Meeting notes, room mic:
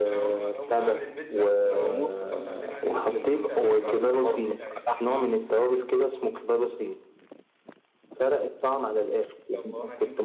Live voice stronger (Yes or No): No